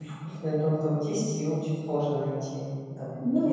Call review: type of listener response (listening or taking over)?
taking over